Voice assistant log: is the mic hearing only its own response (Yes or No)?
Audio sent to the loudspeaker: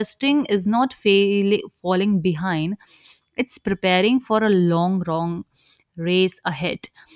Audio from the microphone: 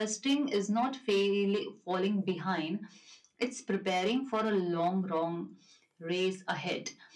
Yes